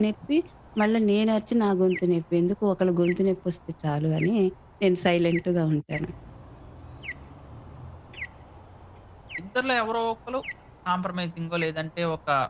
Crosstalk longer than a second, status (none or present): none